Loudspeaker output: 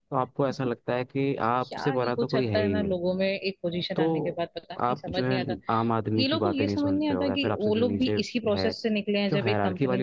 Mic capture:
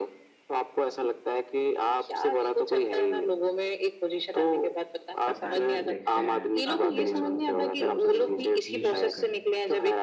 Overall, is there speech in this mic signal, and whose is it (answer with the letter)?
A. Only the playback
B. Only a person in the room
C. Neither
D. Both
D